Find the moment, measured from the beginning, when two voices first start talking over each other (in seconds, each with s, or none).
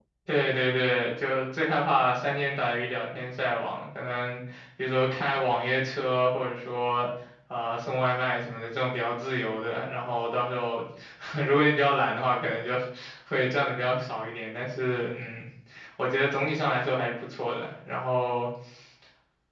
none